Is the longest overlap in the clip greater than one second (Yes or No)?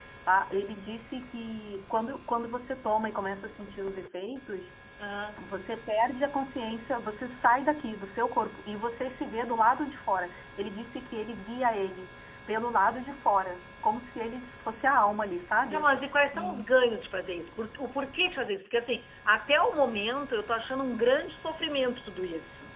No